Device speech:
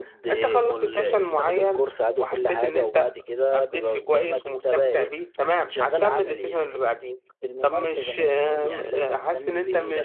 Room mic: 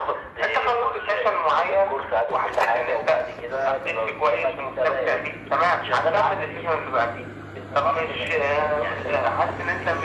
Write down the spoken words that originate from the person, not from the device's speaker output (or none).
none